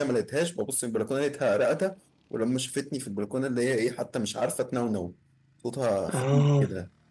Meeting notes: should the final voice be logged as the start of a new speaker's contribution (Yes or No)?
No